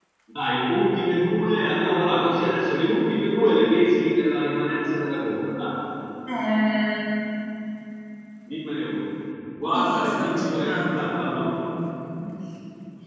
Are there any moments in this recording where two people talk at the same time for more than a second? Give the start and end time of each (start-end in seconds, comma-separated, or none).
9.7-11.8